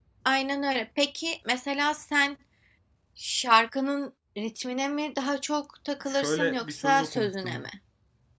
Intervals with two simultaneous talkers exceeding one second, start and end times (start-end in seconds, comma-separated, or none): 6.1-7.6